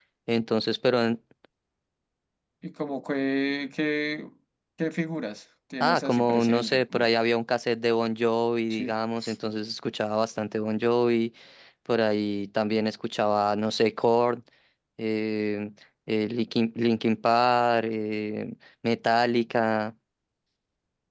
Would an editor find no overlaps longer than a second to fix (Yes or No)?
No